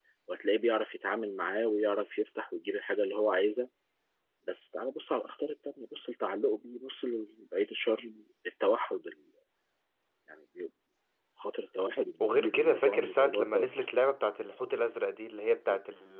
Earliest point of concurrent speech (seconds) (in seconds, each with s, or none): 12.2 s